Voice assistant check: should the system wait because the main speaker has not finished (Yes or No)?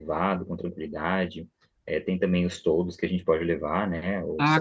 No